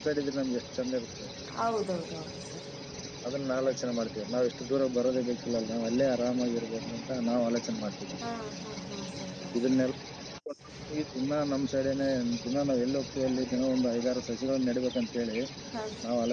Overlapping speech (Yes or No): No